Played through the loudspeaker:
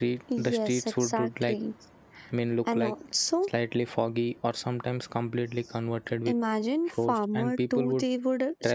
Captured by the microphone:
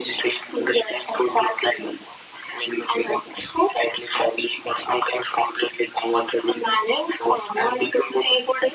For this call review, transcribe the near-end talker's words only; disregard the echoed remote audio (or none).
none